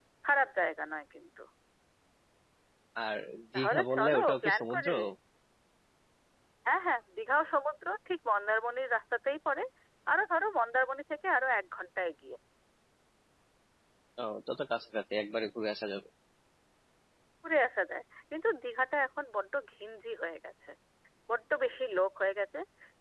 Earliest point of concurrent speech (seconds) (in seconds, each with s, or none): 3.5 s